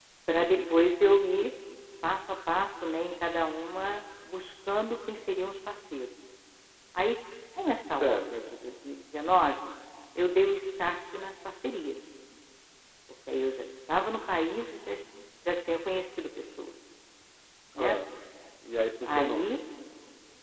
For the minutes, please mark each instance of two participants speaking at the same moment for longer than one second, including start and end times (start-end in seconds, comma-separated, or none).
none